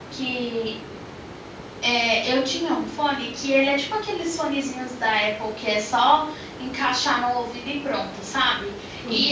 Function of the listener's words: listening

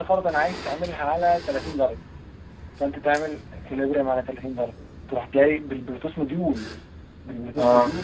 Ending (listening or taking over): listening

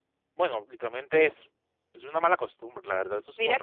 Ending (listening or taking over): taking over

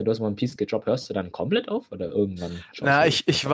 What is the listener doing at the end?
taking over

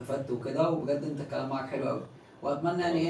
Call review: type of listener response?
listening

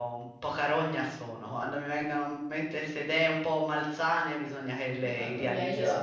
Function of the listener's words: taking over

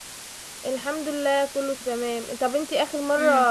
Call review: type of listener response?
listening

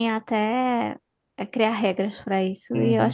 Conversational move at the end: taking over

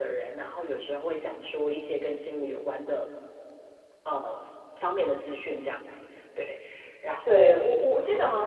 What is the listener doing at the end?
taking over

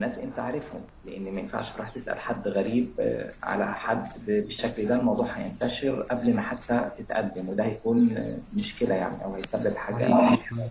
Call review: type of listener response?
taking over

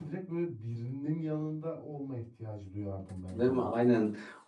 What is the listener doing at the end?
taking over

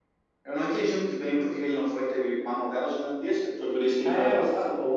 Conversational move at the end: taking over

